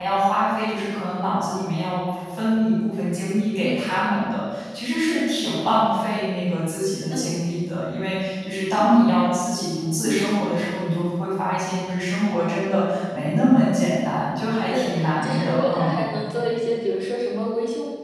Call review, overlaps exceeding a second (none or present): present